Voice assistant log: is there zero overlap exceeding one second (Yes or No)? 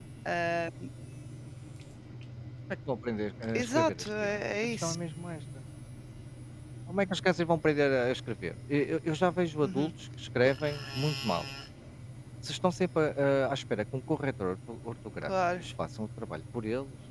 No